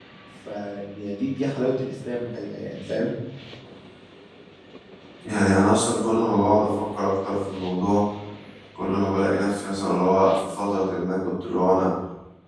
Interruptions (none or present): none